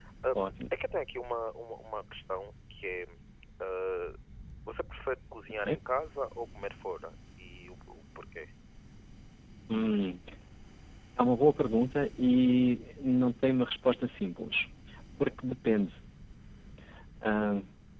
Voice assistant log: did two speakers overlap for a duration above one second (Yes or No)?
No